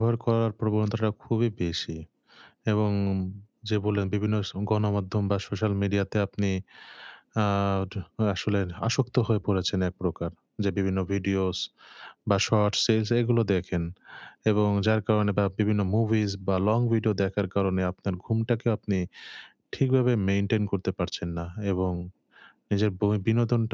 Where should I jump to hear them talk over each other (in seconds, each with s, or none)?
none